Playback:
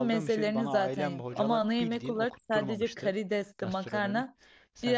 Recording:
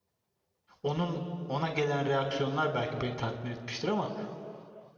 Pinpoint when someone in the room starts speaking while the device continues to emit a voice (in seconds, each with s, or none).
0.8 s